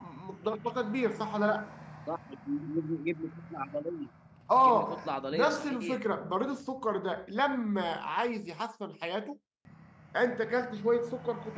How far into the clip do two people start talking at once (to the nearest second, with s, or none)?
5 s